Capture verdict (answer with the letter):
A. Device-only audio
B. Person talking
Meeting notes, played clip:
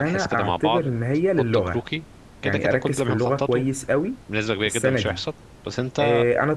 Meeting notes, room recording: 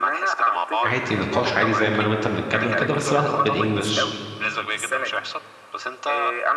B